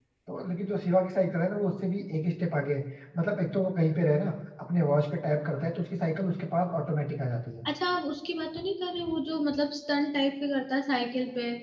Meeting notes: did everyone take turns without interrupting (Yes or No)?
Yes